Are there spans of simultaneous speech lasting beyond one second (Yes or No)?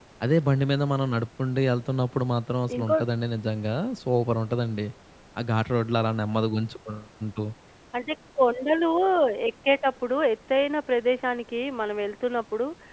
No